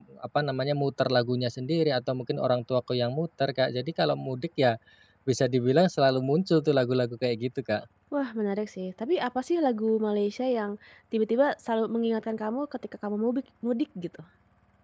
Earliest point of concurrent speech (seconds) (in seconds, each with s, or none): none